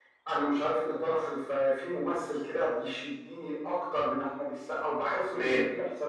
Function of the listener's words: listening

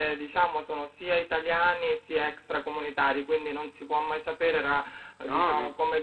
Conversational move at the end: listening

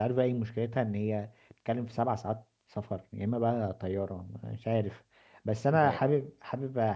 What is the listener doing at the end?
listening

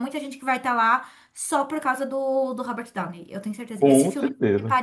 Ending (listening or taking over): listening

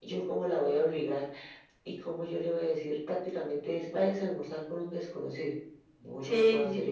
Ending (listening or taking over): taking over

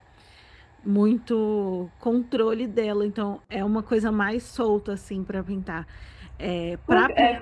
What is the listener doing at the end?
taking over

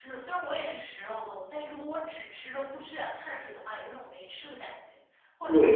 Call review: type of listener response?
taking over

